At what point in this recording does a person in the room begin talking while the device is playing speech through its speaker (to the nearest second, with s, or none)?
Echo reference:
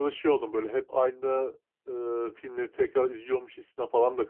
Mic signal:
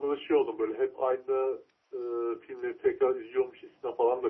none